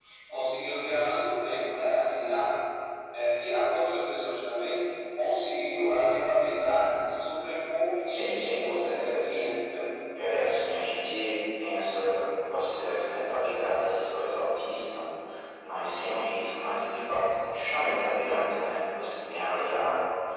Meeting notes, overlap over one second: present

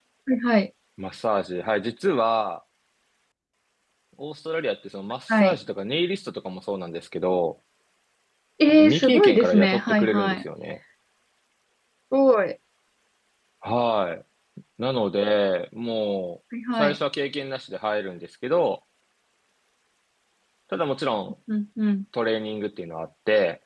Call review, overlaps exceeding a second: present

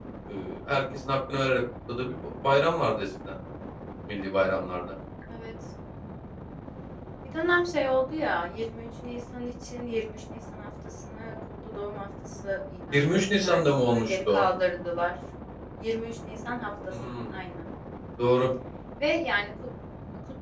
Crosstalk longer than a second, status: present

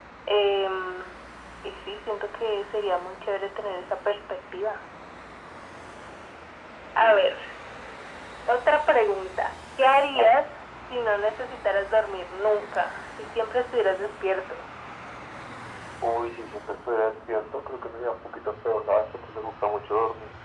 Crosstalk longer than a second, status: none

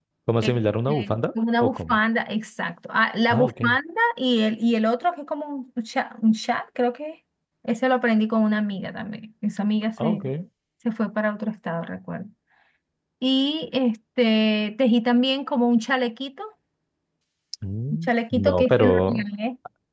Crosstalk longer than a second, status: present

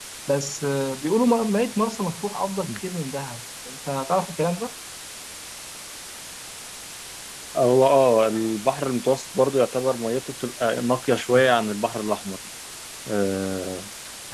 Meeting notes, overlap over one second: none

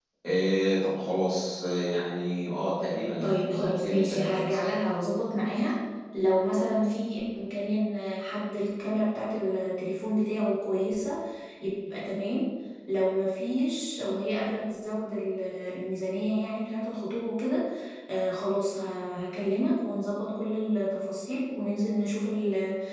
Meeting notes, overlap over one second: present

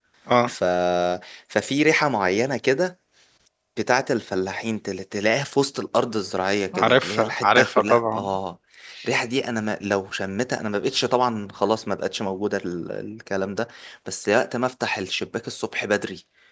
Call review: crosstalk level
present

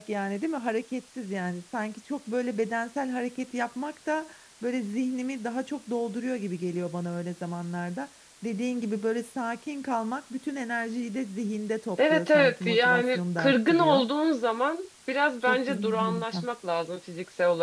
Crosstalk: present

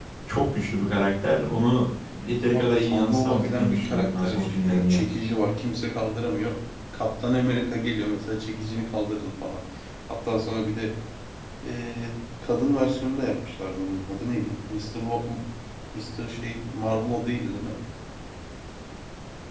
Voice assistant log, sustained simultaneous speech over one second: present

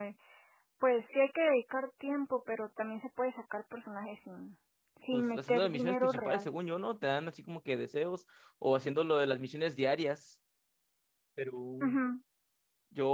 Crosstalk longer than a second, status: present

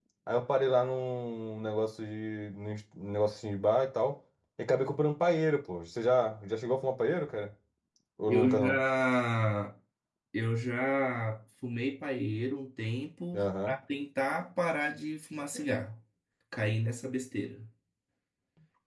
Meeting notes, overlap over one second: none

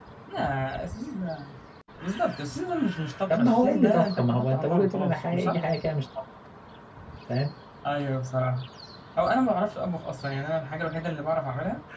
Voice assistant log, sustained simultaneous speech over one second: present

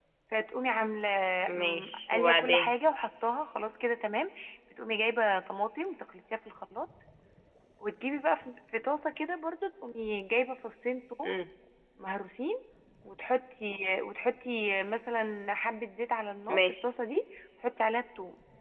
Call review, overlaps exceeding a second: present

